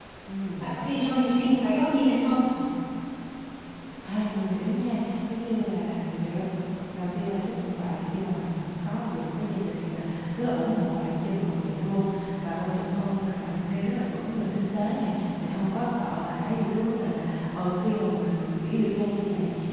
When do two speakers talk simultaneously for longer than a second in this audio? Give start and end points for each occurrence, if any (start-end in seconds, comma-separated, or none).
none